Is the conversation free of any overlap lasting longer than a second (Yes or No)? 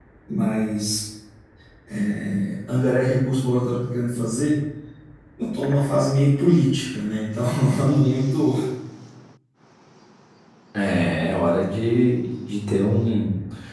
Yes